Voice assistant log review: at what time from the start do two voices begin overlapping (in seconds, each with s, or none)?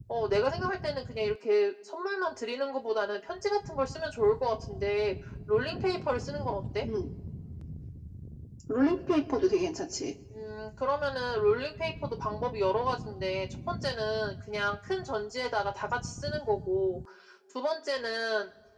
none